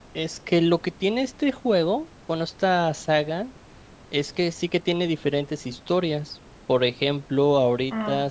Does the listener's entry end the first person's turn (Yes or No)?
No